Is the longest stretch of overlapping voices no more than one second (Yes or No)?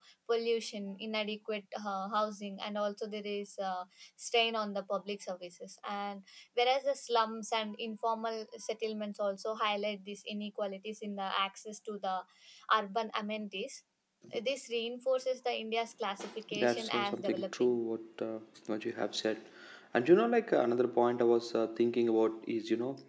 No